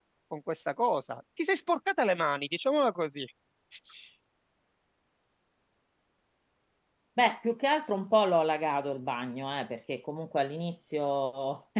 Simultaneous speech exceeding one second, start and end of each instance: none

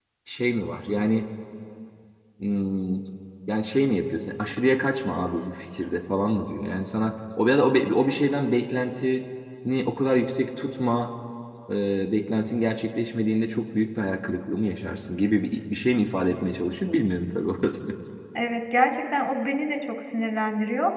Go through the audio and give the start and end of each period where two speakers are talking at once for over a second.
none

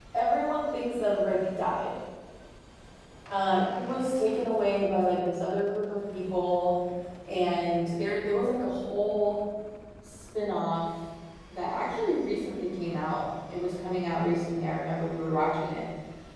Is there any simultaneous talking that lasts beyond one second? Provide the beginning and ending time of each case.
none

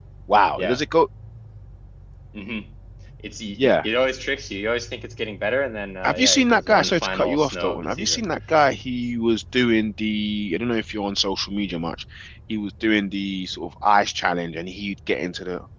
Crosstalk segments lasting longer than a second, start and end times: 6.0-8.2

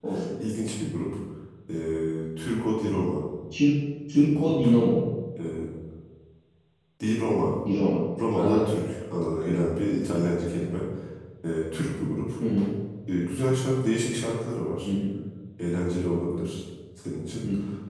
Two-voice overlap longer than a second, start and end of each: none

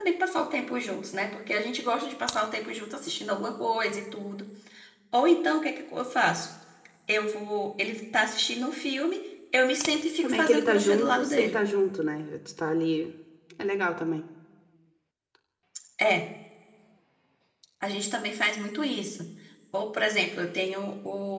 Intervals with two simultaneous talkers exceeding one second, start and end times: 10.2-11.6

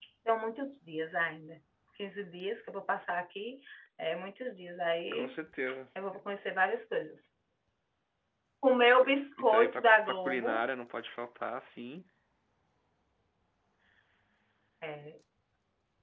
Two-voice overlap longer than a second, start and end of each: 9.4-10.6

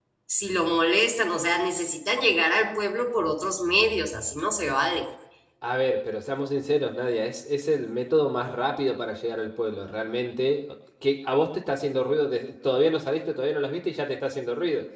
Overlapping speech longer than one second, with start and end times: none

